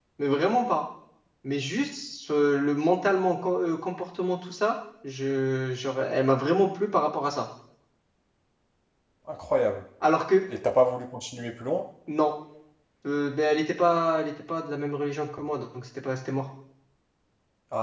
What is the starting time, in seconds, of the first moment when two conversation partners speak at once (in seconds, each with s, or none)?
none